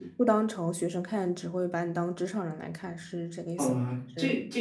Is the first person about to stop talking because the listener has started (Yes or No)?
Yes